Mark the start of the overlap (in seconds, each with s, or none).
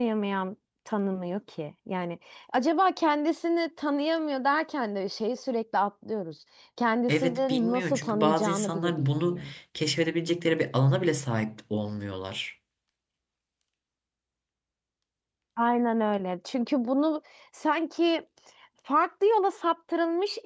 7.1 s